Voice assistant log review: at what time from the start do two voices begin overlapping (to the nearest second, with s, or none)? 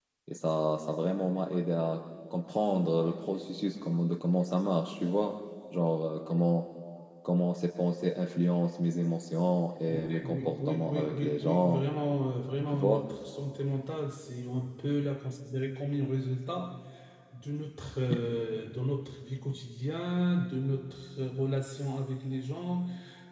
10 s